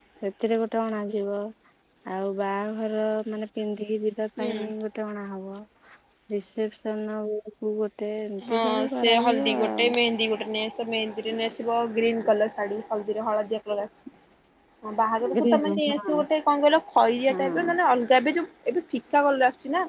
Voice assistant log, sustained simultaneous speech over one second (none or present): present